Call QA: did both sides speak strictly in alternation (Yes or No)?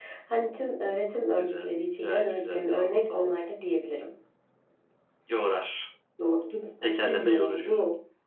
No